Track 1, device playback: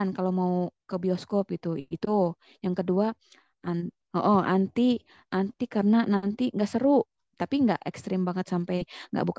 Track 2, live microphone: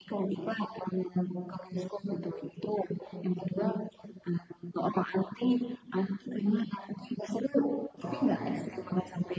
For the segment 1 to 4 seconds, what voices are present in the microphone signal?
echo only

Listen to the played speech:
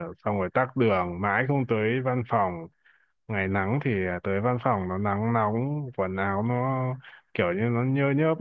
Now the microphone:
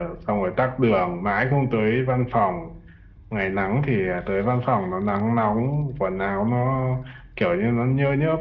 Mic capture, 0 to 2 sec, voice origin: echo only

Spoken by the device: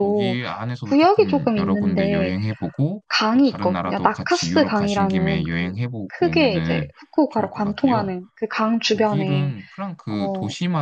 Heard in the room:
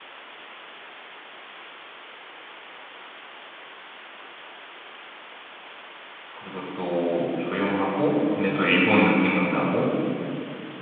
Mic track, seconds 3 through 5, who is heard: neither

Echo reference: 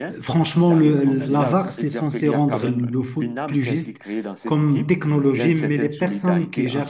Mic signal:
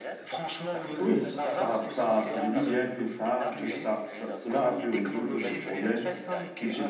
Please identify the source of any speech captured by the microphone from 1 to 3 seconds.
both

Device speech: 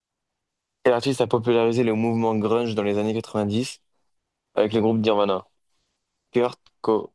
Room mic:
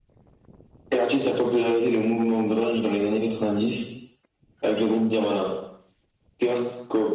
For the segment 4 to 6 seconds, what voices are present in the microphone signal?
echo only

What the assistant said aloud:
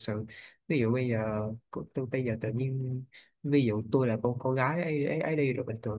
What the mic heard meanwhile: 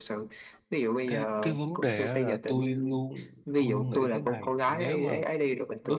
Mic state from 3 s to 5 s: both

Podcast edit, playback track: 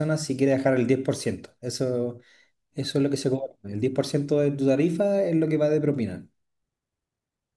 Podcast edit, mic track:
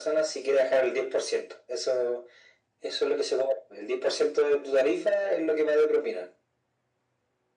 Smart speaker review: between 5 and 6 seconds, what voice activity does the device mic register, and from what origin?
echo only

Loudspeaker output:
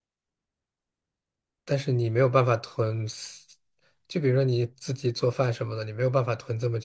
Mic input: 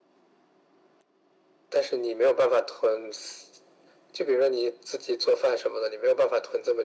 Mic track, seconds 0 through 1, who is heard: neither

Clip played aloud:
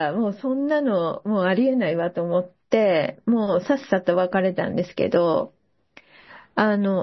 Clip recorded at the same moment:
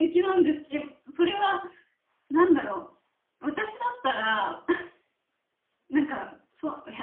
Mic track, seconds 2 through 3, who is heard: user only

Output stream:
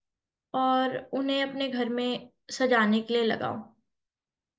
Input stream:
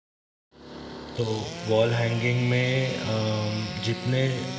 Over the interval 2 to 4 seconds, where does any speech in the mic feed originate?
user only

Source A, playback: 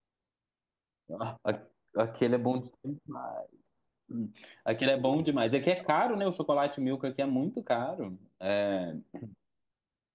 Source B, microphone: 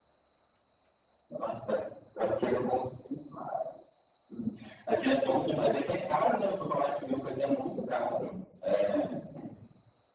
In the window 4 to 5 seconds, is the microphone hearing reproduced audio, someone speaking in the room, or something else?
echo only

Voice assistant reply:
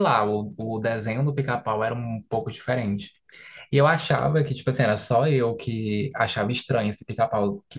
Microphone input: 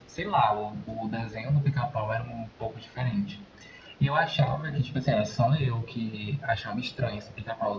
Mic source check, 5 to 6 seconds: echo only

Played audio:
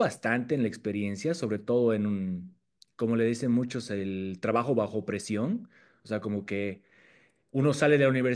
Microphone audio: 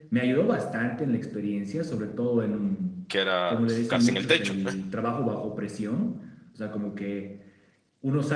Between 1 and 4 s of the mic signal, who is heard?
both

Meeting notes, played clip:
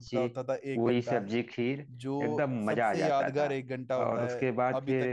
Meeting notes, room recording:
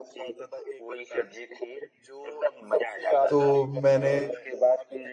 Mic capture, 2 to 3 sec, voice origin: echo only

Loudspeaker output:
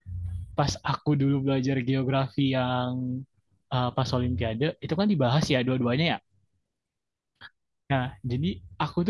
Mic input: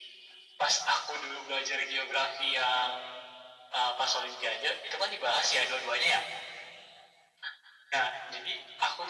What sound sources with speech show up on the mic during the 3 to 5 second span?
echo only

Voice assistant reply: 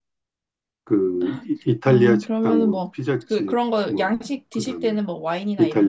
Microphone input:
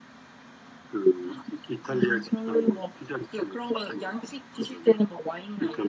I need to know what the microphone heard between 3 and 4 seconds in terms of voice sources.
echo only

